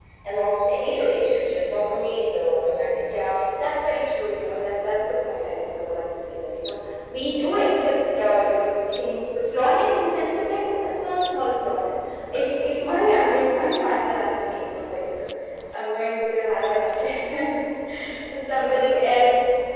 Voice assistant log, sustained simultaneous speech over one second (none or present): none